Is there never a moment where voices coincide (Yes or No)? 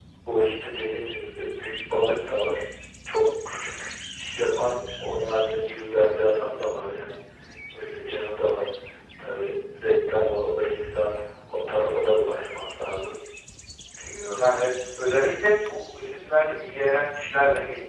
Yes